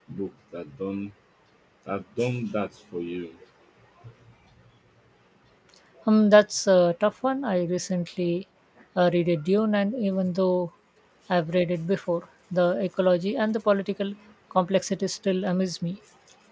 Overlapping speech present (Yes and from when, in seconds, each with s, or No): No